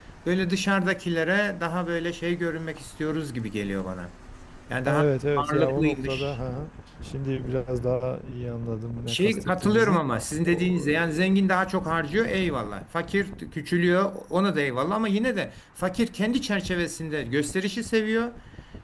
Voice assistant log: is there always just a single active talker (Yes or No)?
No